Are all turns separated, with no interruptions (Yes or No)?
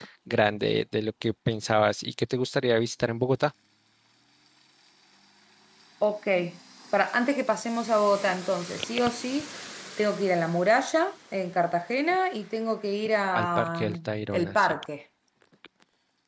No